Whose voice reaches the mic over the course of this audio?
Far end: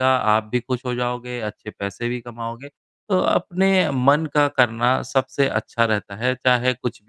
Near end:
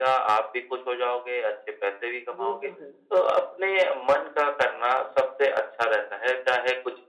both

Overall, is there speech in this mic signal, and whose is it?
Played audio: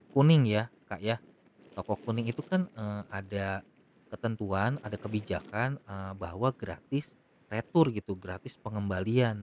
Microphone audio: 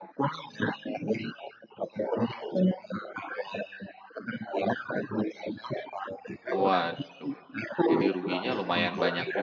both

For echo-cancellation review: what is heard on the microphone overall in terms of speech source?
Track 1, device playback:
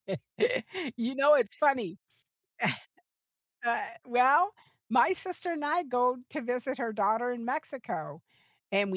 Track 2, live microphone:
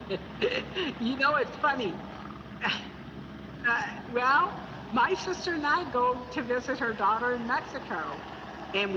echo only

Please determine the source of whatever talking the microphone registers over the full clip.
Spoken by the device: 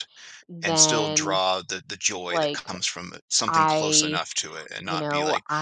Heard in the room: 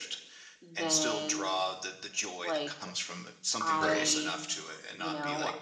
both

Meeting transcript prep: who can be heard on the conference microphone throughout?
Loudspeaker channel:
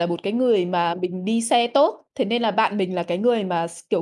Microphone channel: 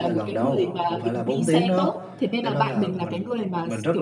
both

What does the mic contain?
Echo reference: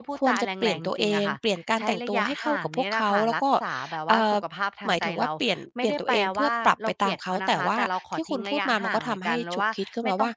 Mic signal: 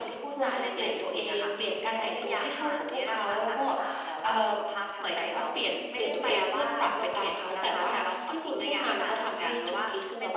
echo only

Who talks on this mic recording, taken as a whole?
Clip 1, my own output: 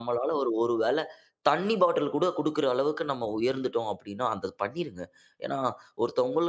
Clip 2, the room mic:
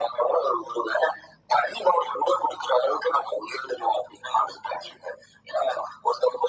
echo only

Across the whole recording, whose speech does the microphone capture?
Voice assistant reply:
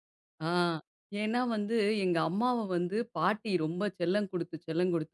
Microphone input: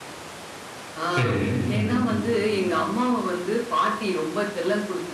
both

